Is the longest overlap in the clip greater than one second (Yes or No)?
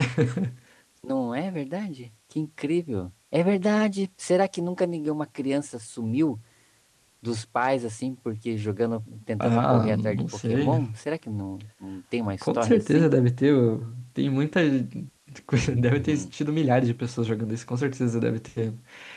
Yes